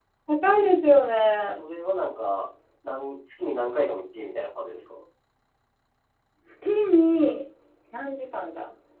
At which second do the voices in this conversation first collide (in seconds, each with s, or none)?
none